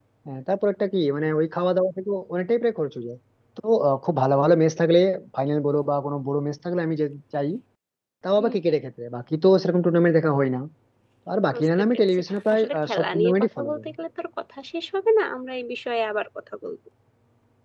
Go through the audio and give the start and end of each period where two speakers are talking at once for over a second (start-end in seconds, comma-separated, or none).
11.5-13.8